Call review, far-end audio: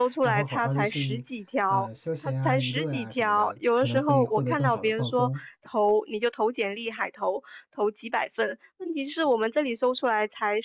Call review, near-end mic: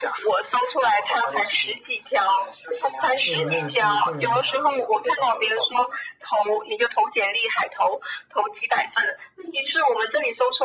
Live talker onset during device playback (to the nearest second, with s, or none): 3 s